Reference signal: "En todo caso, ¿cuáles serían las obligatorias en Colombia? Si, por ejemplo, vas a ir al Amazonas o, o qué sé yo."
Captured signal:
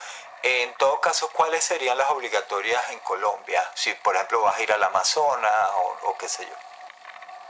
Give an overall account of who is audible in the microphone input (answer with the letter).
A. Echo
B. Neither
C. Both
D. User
A